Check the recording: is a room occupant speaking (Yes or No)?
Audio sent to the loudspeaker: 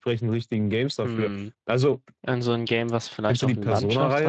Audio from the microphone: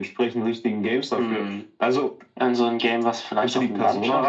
No